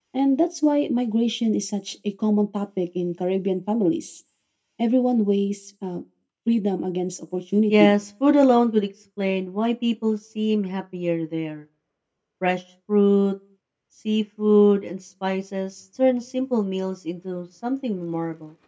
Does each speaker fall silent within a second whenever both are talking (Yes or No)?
Yes